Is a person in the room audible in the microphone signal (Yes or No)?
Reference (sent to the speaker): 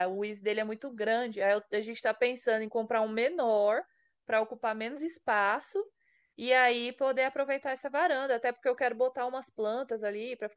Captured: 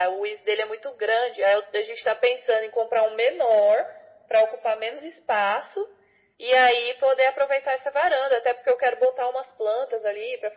No